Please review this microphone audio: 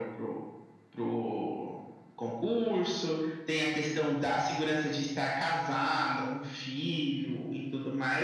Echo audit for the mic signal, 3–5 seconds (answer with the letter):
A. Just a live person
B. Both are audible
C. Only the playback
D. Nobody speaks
C